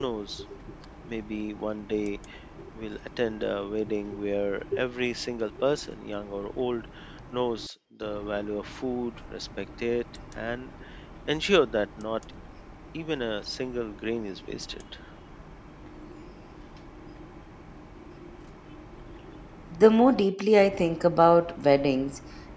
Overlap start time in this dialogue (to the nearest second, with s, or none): none